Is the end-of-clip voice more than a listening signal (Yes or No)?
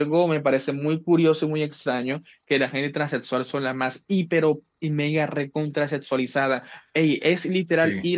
No